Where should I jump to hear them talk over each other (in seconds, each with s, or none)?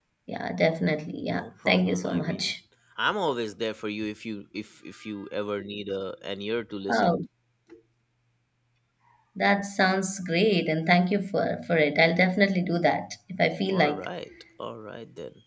1.3 s